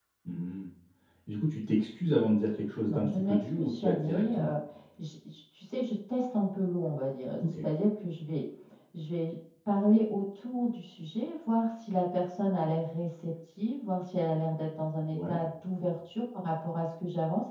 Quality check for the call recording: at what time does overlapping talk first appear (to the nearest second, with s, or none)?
3 s